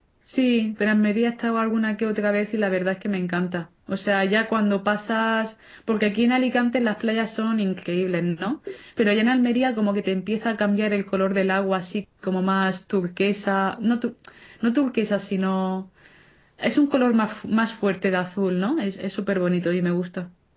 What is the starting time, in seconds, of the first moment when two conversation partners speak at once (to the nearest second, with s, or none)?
none